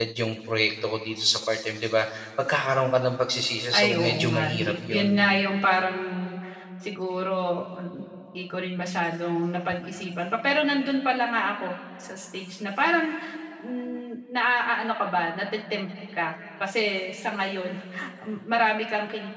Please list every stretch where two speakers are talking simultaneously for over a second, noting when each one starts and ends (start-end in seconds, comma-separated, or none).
3.7-5.2